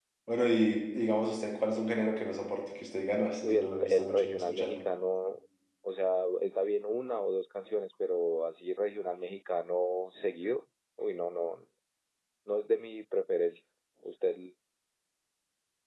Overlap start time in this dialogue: 3.4 s

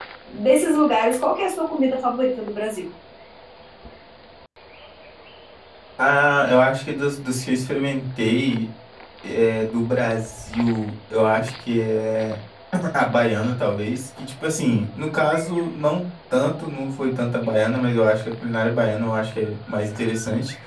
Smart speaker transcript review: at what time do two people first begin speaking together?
none

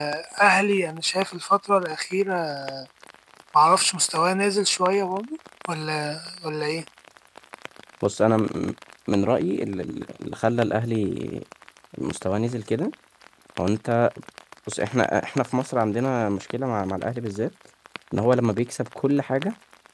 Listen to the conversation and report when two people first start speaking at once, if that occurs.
none

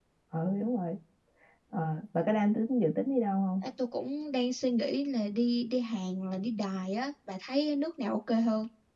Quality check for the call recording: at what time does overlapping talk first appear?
none

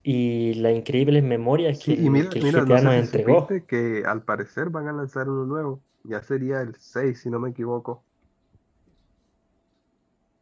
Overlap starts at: 1.8 s

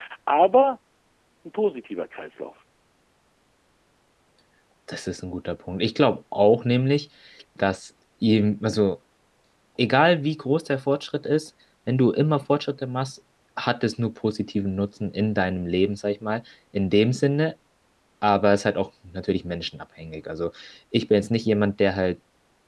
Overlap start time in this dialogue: none

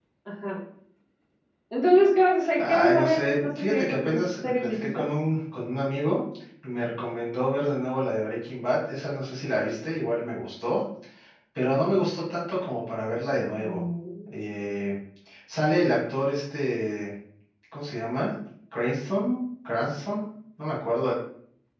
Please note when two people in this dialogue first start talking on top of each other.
2.6 s

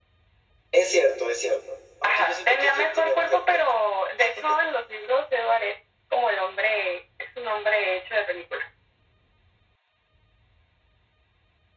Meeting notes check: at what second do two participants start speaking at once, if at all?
2.0 s

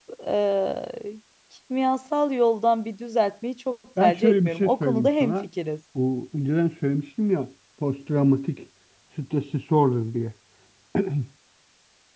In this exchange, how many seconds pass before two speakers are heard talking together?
4.0 s

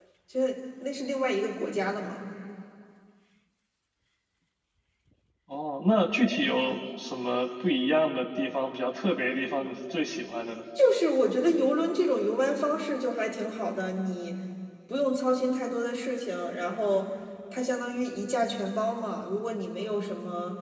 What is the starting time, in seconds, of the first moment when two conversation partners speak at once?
none

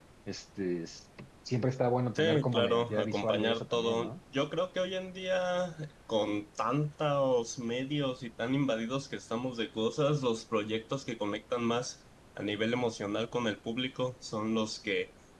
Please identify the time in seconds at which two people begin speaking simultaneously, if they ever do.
2.1 s

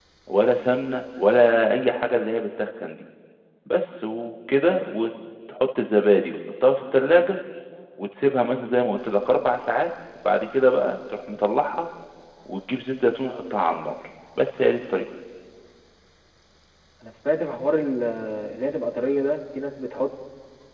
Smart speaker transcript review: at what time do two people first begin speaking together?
none

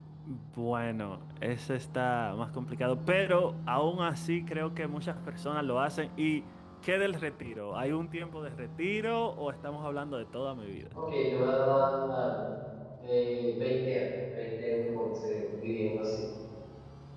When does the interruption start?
none

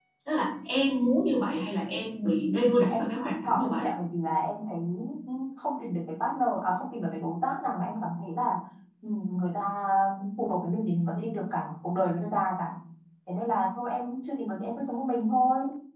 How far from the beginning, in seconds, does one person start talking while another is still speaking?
2.6 s

